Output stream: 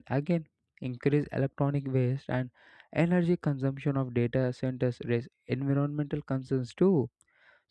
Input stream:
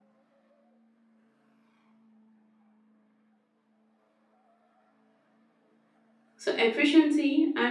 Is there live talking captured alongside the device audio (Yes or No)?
Yes